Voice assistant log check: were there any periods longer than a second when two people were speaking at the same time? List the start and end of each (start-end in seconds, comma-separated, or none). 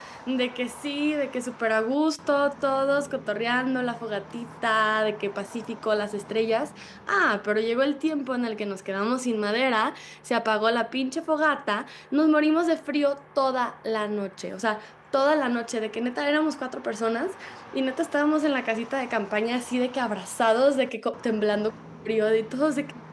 none